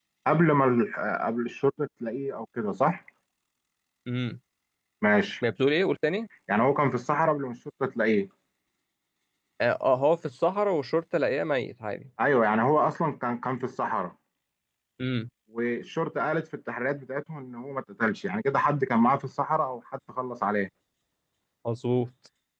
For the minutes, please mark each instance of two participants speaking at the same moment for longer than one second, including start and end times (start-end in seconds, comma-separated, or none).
none